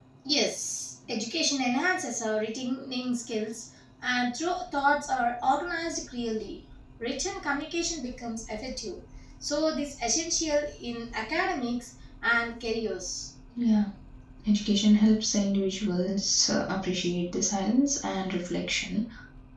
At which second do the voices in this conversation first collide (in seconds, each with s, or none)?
none